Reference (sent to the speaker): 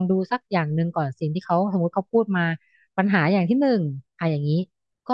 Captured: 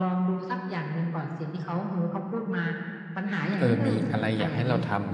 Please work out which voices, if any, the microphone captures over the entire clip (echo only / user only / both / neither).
both